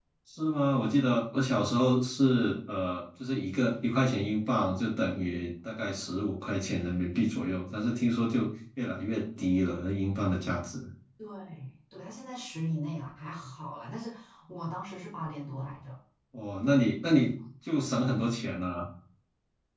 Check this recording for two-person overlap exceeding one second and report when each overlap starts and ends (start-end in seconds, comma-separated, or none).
none